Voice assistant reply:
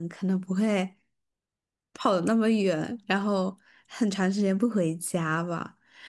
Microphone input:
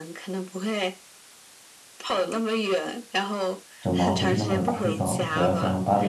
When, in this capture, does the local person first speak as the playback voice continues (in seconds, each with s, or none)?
3.8 s